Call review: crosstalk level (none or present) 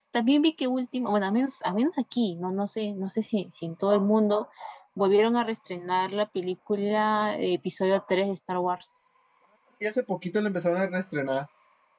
none